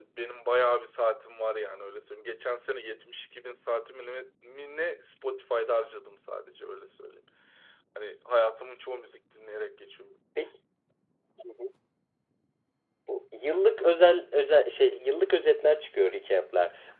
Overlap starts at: none

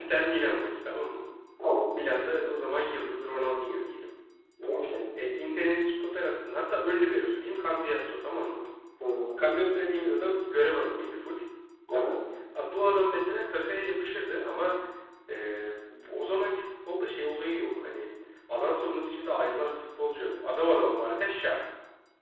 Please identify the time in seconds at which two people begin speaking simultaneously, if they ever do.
none

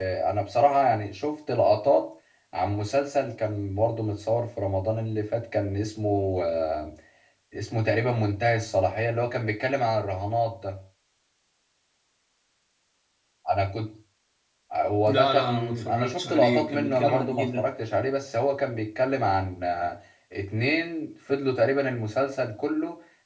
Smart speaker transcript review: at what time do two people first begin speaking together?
15 s

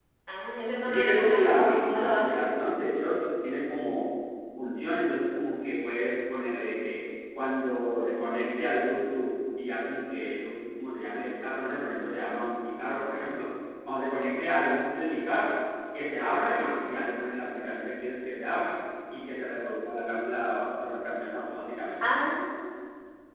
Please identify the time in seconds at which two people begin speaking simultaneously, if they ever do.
1 s

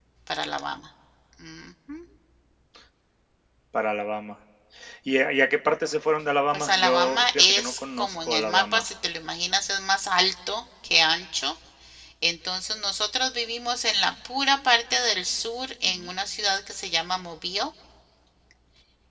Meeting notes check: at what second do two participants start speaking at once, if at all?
7 s

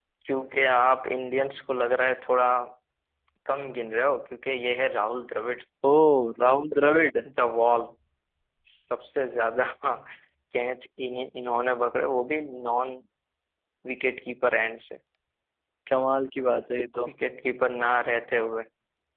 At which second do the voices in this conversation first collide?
none

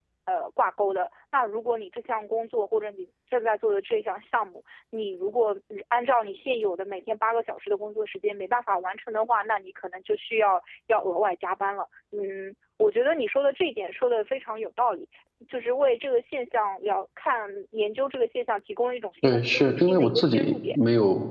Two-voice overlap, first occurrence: 19 s

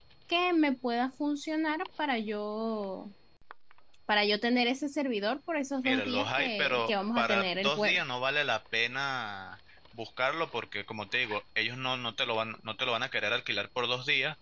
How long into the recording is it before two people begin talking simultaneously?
6 s

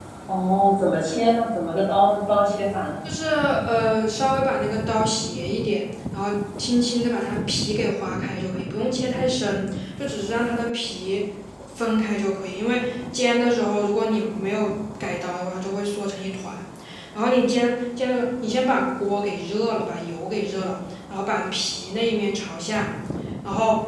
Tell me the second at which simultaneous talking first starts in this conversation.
none

